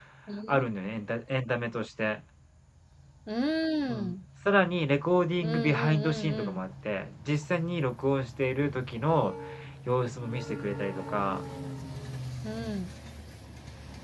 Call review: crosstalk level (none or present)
present